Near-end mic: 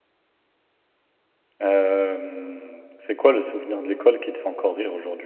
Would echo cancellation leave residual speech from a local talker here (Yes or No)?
Yes